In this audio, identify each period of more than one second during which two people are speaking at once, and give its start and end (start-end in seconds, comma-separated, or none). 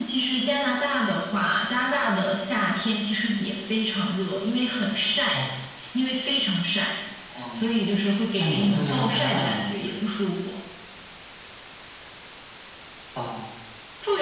8.4-9.7